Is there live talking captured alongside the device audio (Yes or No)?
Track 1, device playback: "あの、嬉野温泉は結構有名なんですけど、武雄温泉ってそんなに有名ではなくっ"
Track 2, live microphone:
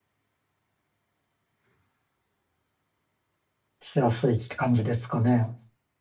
Yes